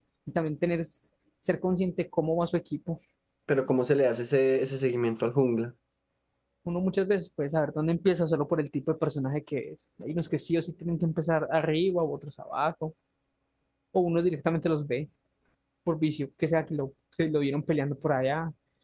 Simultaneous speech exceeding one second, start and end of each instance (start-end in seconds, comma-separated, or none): none